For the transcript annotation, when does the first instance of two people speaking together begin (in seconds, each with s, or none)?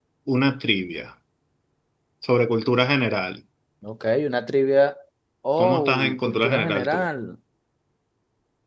5.6 s